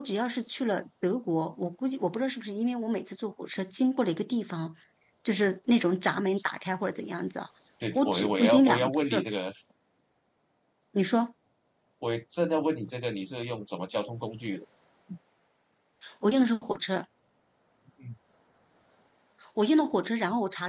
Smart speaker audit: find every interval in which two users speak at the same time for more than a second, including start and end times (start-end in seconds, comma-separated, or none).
8.0-9.3